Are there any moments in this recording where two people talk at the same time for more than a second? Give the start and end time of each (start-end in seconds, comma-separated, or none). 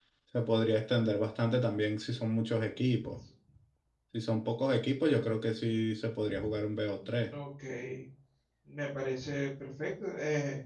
none